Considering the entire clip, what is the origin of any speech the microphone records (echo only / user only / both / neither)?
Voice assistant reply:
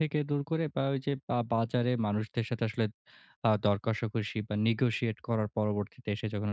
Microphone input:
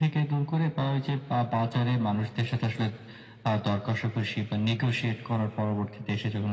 echo only